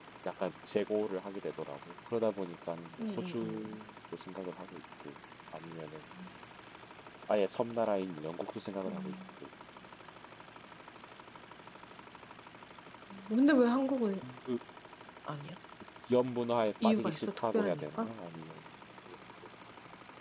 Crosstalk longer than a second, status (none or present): present